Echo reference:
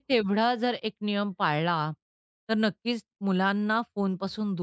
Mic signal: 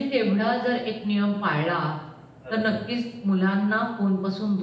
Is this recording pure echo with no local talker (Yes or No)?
No